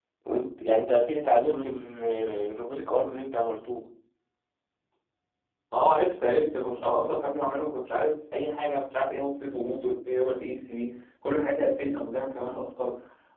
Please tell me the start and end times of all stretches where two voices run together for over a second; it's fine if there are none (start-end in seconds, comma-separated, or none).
none